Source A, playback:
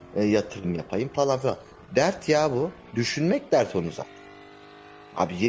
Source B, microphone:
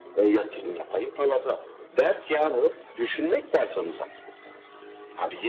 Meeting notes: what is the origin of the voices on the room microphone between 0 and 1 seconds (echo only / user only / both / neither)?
echo only